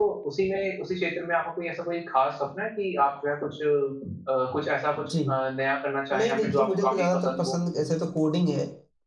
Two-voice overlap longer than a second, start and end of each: 6.1-7.5

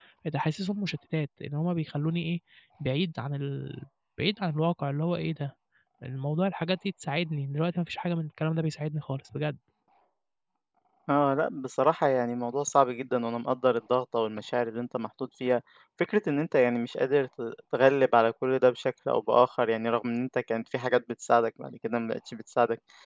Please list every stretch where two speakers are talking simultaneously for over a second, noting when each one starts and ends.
none

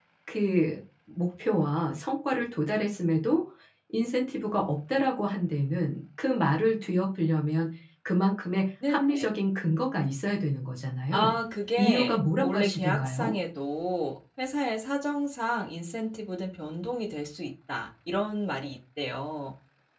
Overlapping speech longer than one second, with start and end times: 11.8-13.3

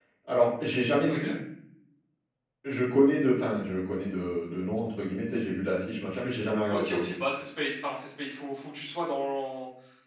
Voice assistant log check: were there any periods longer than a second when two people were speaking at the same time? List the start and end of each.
none

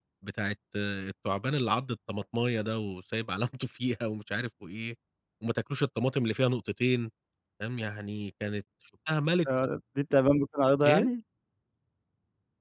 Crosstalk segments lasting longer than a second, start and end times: none

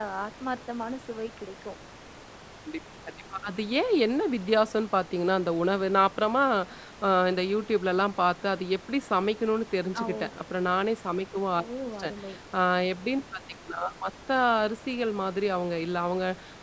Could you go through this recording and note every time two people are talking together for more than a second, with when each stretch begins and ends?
none

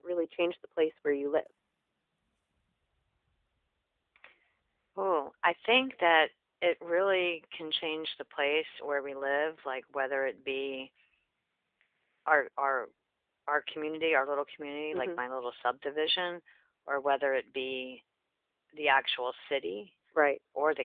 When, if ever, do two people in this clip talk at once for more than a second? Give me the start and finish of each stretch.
none

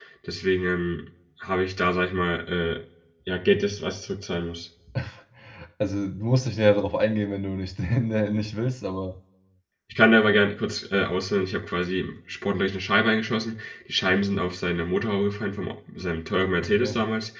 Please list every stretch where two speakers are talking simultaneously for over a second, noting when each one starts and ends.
none

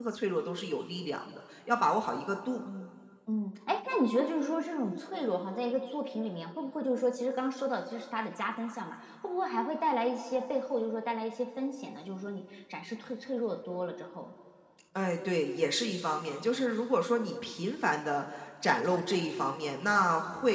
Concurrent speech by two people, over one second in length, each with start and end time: none

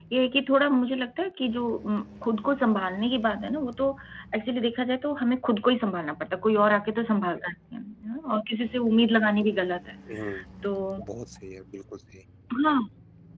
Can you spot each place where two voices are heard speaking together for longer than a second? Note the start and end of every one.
none

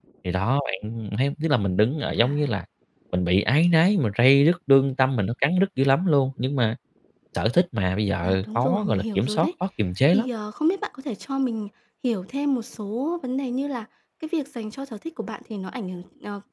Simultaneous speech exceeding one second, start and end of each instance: 8.2-9.5

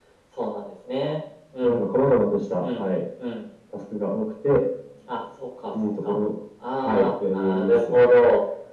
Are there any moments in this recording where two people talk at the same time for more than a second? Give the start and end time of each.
6.8-8.1

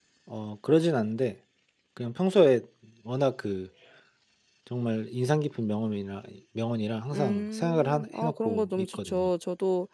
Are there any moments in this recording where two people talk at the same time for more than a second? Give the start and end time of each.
7.1-9.3

